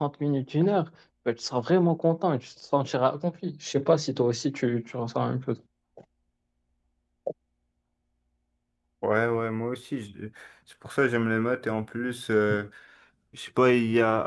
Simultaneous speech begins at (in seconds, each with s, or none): none